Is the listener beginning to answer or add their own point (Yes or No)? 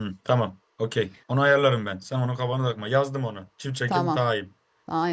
Yes